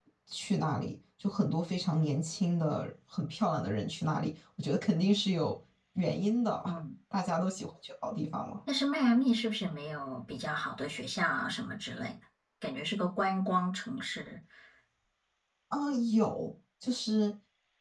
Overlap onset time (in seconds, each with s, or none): none